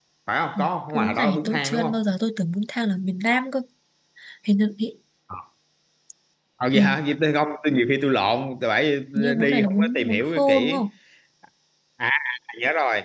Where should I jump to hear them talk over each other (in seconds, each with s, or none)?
0.6 s